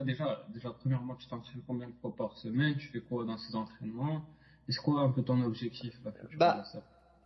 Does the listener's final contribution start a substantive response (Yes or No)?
Yes